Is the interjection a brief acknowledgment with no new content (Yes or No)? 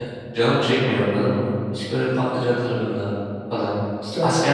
Yes